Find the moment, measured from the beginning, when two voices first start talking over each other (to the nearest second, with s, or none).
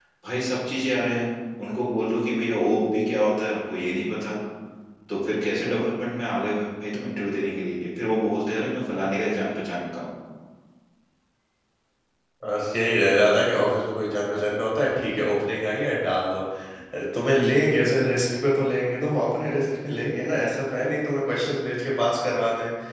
none